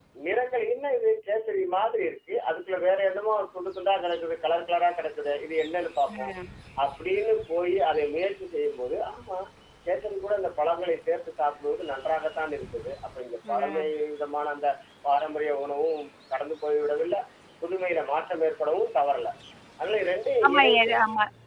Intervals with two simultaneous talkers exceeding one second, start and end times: none

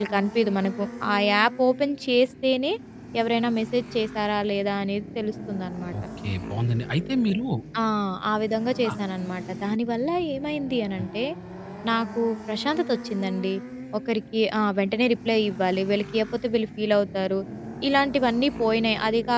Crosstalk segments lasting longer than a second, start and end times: none

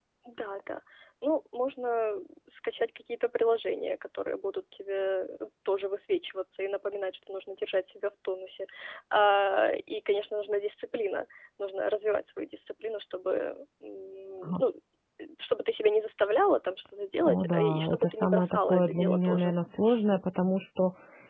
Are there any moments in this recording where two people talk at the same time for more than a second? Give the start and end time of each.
17.2-19.5

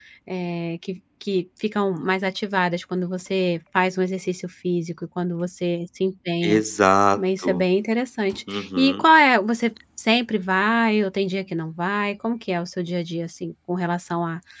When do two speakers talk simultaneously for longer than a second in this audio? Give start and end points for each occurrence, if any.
none

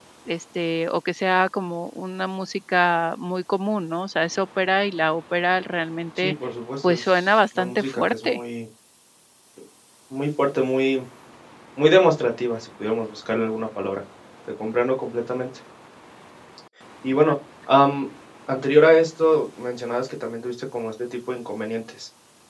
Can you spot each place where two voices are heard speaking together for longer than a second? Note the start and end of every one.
6.8-8.4

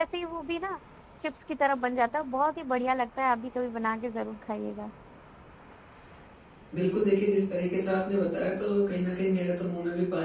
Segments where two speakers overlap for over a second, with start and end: none

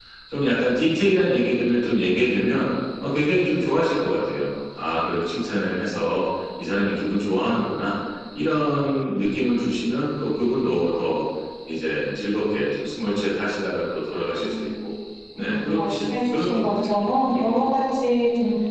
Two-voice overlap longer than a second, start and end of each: 15.4-16.9

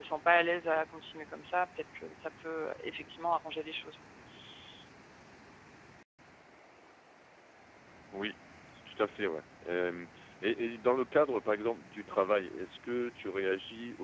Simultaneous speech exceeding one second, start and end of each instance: none

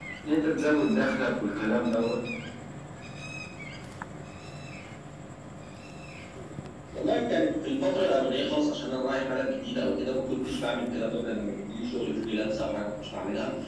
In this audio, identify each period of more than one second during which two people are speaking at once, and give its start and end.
none

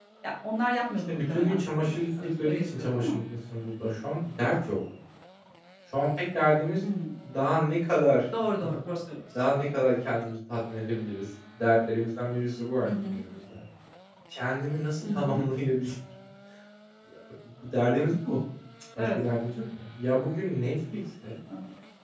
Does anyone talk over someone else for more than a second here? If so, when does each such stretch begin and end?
1.1-3.2

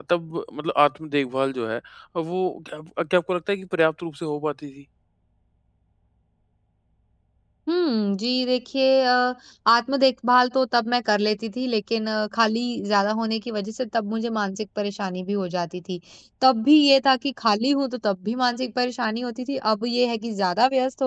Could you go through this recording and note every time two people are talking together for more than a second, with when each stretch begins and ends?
none

